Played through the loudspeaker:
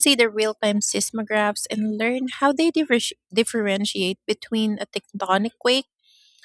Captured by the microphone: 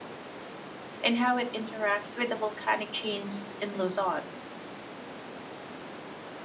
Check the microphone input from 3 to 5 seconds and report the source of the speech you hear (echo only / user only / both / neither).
user only